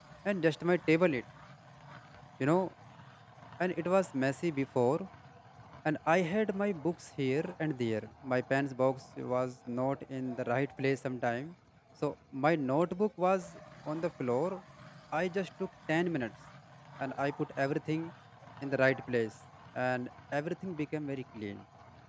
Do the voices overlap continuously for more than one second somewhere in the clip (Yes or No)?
No